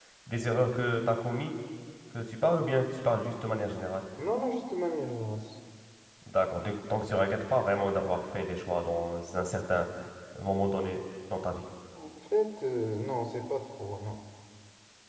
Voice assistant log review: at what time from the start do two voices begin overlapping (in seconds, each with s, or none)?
none